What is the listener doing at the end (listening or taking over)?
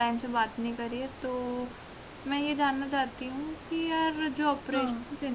listening